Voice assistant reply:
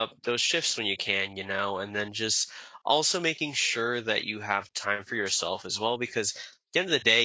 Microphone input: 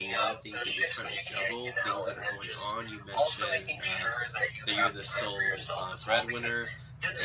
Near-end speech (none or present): present